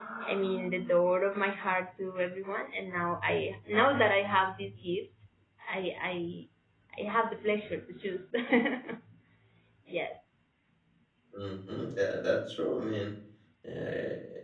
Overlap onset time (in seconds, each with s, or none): none